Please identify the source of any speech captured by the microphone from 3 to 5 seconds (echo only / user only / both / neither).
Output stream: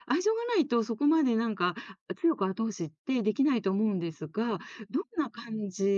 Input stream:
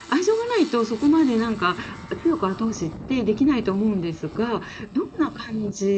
echo only